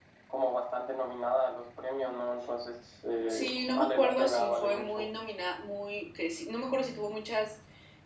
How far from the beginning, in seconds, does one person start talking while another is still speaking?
3.3 s

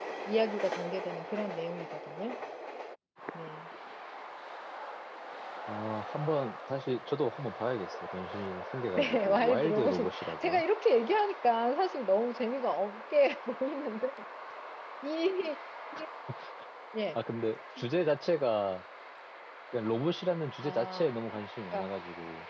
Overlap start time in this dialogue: 9.0 s

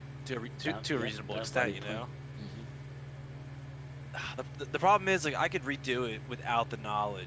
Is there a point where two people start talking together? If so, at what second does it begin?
0.6 s

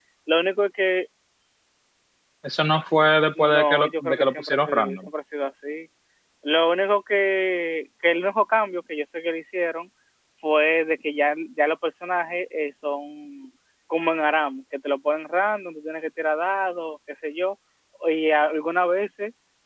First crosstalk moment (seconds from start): 3.4 s

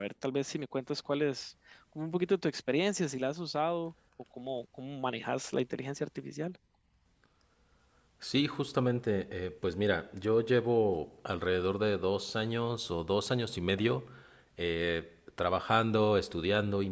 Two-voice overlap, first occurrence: none

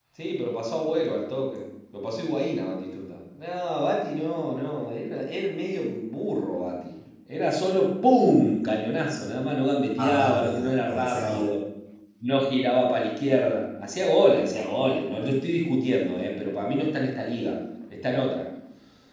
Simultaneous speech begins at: 10.0 s

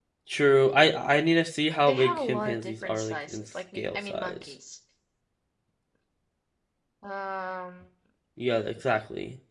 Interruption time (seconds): 1.9 s

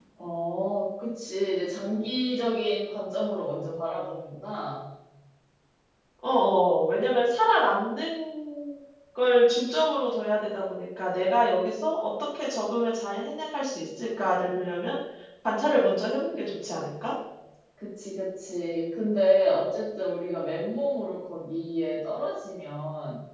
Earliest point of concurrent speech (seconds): none

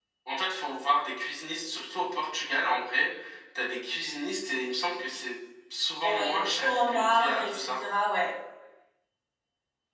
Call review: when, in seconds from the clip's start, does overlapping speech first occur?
6.0 s

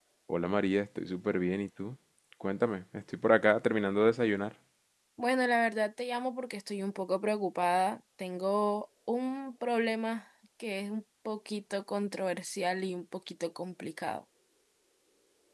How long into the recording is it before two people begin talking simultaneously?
none

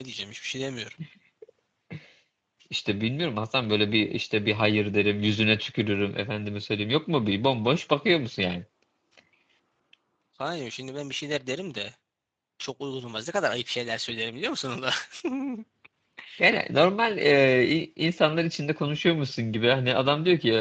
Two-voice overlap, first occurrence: none

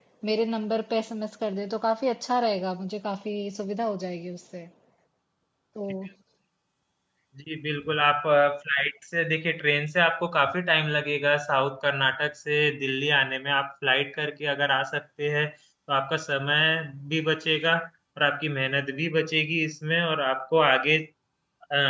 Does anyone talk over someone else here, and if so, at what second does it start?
none

